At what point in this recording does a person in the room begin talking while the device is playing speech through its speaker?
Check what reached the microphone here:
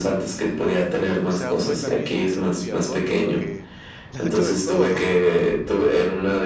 1 s

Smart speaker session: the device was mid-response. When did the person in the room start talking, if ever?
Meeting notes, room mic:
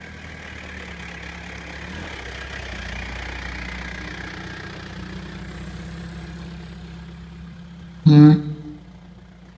8 s

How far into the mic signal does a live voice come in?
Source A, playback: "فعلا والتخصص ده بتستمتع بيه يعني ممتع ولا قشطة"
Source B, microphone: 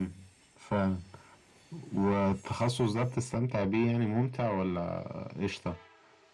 none

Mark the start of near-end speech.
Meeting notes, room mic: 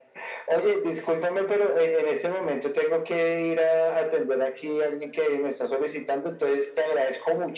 none

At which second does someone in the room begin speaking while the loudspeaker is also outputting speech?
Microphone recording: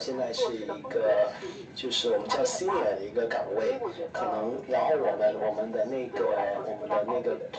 none

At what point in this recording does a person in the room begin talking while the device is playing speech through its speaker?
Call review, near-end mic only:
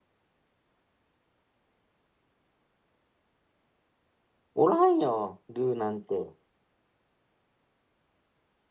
5 s

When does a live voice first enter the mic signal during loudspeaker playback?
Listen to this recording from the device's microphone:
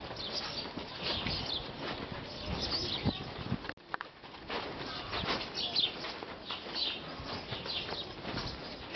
none

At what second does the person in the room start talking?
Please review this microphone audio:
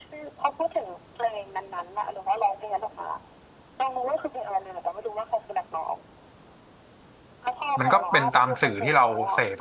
8 s

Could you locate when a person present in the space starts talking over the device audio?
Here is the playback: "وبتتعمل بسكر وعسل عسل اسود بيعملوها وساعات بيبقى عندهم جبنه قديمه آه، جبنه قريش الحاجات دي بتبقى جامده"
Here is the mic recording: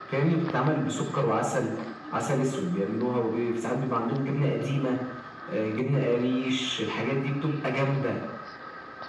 none

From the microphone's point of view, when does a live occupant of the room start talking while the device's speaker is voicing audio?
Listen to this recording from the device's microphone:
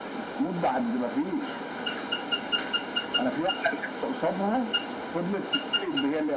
none

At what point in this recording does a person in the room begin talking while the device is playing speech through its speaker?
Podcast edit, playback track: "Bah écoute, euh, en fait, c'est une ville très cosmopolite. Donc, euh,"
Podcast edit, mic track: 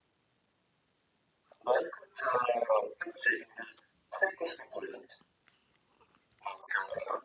none

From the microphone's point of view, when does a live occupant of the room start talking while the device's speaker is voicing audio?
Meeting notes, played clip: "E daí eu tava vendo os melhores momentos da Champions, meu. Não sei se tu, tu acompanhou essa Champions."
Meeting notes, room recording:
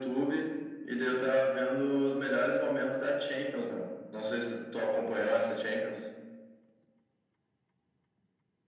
none

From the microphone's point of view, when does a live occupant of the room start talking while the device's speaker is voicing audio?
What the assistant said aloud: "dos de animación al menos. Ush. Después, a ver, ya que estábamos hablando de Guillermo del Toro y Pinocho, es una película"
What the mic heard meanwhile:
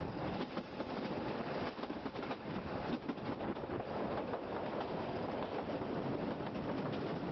none

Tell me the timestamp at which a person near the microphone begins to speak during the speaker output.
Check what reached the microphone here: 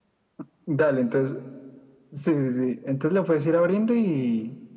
none

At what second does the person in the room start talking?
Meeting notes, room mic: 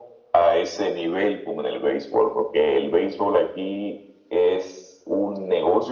none

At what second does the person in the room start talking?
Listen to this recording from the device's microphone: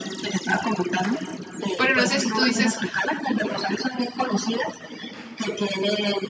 2 s

